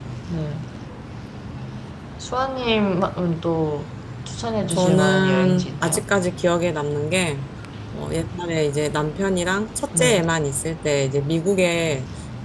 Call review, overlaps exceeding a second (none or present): present